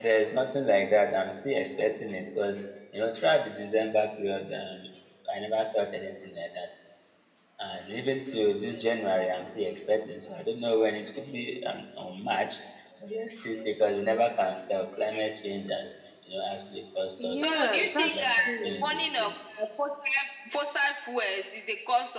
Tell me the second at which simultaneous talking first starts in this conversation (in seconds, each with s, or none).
17.2 s